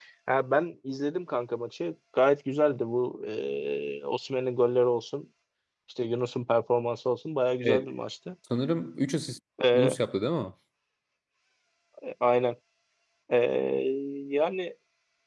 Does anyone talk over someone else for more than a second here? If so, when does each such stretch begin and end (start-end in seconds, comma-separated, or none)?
none